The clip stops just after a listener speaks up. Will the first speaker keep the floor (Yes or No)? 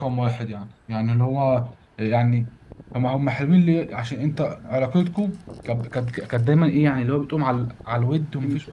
Yes